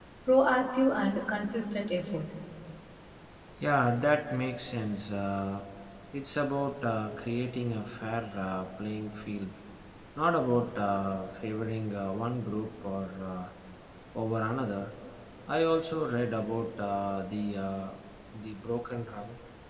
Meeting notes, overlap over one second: none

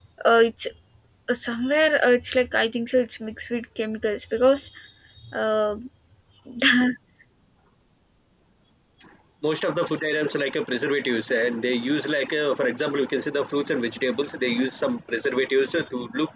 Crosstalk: none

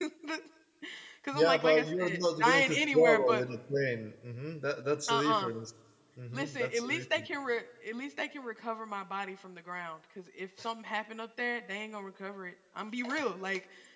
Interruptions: present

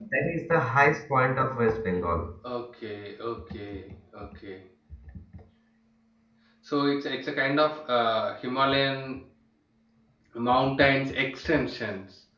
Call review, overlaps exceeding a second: none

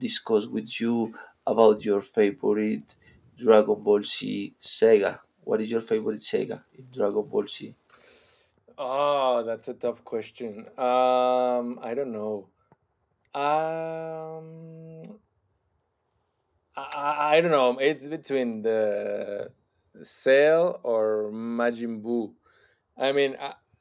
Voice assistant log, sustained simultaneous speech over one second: none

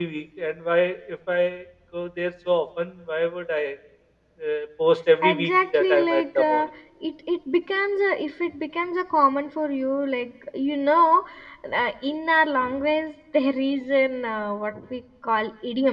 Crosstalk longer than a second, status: present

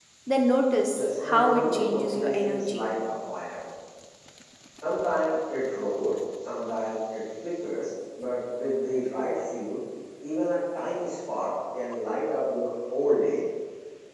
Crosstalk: present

